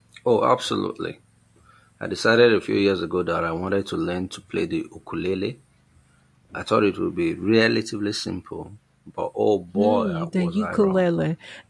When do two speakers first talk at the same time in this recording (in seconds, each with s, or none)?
9.7 s